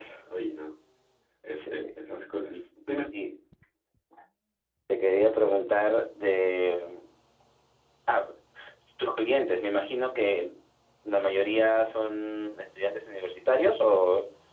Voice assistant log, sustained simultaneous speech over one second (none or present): none